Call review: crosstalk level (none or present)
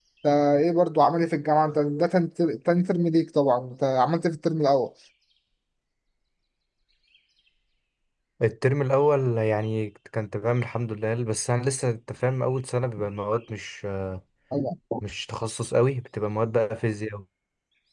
none